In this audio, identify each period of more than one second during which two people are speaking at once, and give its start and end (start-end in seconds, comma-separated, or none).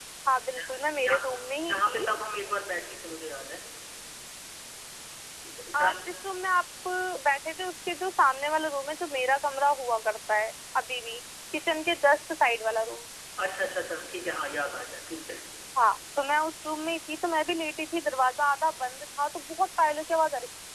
none